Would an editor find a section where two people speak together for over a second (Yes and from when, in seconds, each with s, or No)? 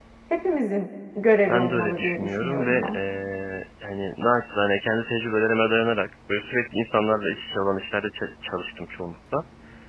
Yes, from 1.5 s